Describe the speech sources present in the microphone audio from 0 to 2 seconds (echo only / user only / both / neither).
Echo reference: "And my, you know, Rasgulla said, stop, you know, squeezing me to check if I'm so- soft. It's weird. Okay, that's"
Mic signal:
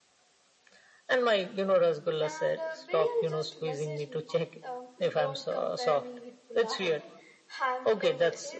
echo only